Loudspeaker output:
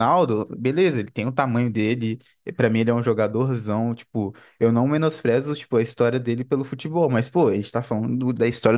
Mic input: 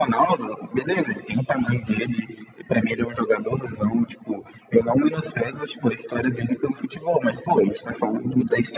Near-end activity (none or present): none